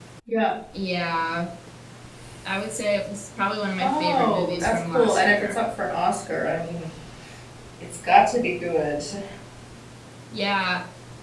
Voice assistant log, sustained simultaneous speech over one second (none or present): present